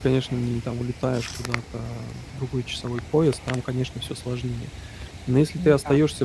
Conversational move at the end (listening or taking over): listening